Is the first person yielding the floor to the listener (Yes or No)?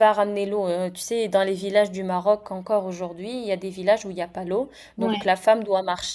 No